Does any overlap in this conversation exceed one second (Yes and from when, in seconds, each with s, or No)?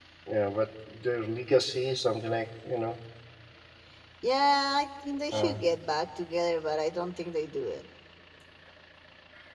No